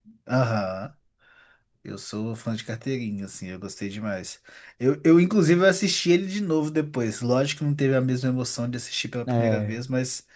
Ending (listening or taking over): listening